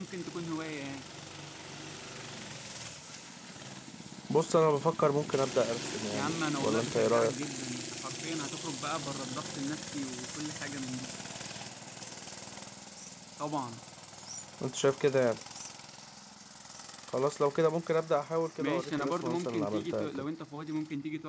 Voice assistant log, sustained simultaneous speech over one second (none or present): present